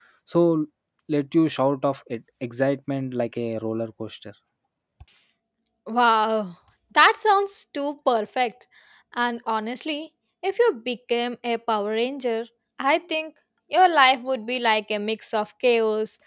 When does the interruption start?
none

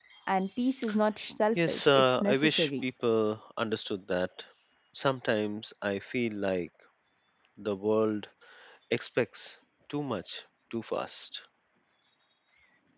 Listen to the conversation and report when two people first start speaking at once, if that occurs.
1.6 s

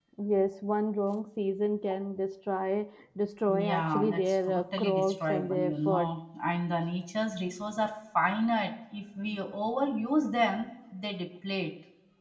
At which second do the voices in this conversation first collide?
3.5 s

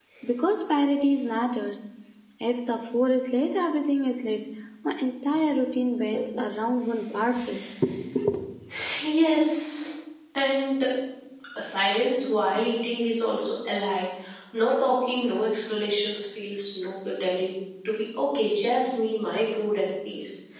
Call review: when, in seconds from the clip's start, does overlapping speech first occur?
none

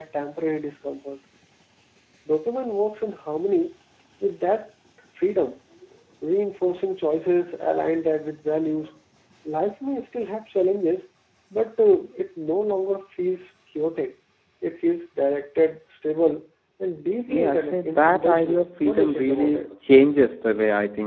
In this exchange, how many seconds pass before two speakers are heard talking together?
17.3 s

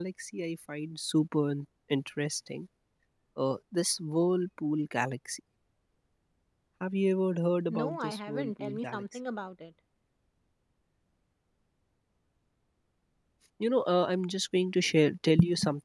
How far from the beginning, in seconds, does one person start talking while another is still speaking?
7.7 s

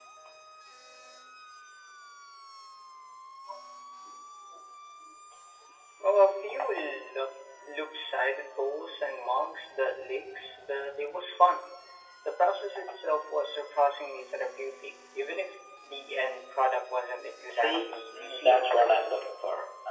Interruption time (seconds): 17.4 s

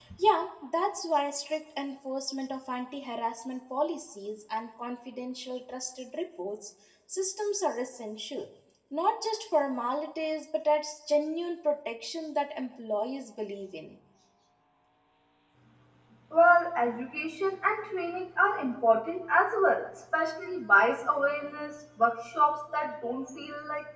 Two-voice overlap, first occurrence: none

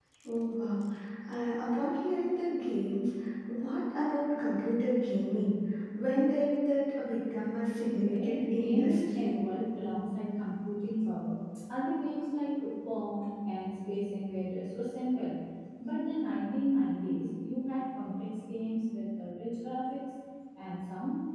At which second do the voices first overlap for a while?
7.8 s

